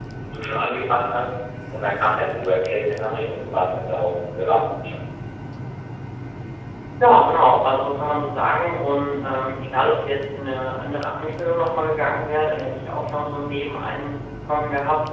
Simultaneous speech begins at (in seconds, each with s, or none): none